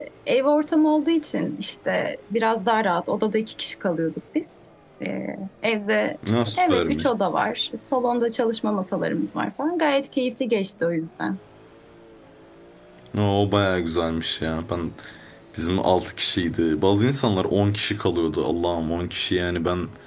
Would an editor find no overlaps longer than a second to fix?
Yes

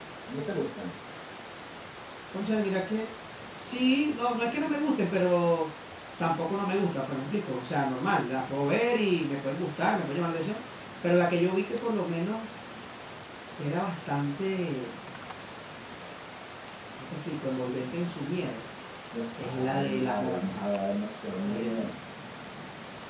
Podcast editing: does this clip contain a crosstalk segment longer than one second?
Yes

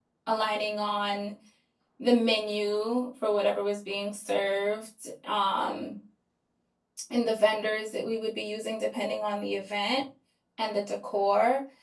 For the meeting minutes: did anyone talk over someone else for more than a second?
No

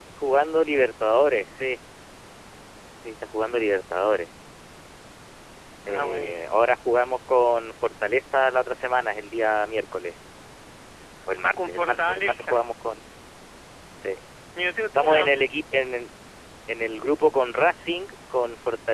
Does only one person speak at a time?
No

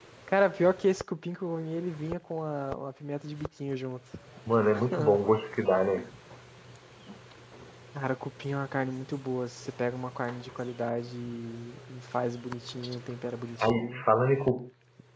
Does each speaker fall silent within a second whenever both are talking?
Yes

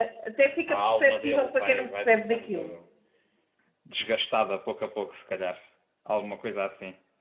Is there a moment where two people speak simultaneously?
Yes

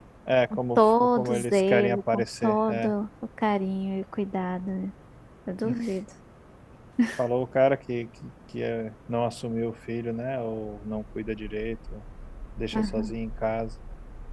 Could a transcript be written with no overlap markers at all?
No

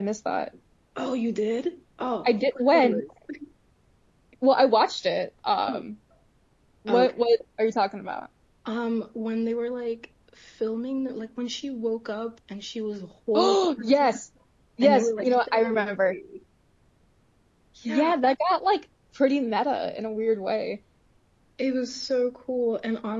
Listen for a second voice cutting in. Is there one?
Yes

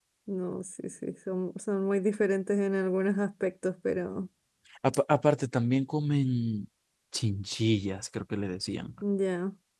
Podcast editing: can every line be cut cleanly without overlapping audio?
Yes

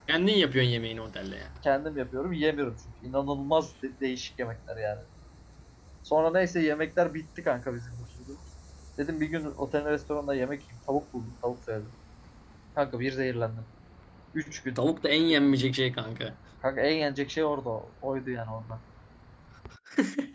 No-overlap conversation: Yes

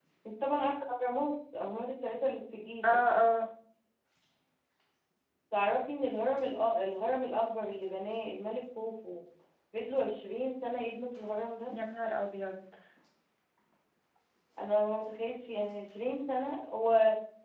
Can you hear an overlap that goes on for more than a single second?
No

